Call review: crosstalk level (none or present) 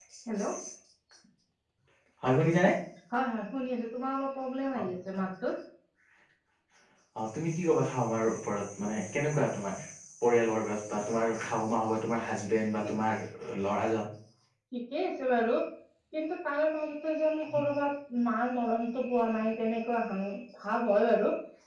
none